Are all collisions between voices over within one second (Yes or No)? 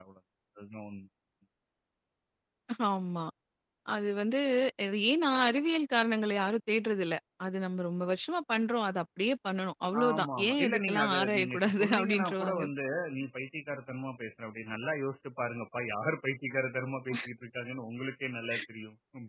No